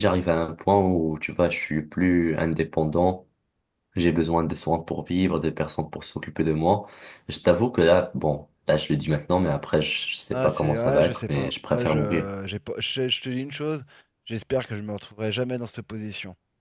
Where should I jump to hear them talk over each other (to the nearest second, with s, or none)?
10 s